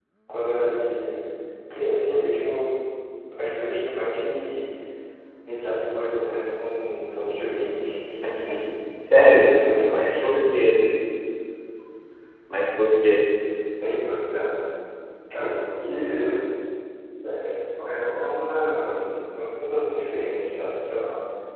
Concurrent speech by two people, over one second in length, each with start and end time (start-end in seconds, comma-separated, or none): none